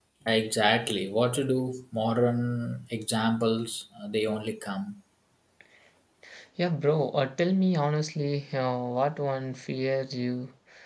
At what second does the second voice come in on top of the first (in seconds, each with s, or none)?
none